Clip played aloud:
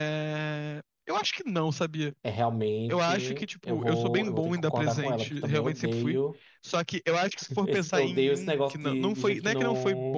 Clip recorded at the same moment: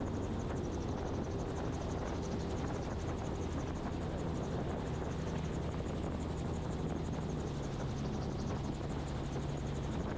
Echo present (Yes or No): No